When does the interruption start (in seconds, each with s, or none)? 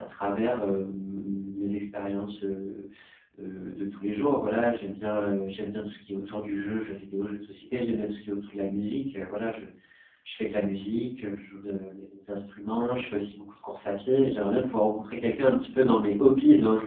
none